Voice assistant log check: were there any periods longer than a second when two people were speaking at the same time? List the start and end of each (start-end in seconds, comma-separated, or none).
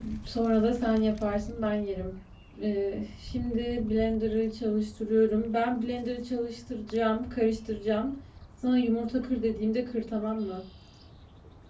none